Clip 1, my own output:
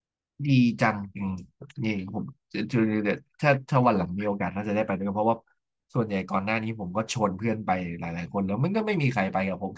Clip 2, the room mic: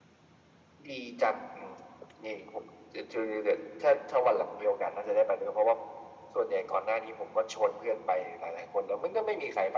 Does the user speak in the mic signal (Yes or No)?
No